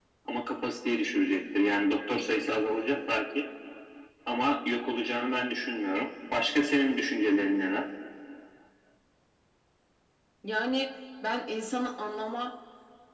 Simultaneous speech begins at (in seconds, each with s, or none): none